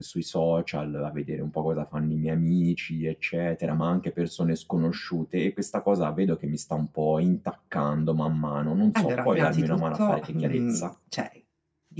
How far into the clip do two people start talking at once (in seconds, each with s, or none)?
9.0 s